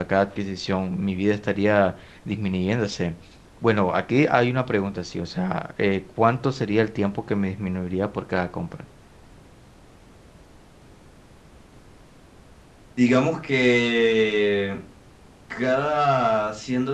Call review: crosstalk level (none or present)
none